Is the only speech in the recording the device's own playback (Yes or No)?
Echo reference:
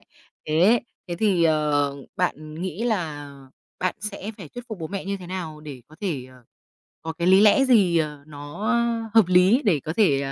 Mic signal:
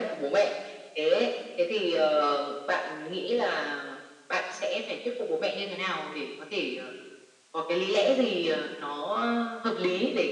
Yes